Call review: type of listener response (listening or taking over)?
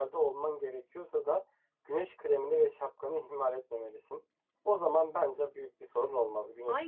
taking over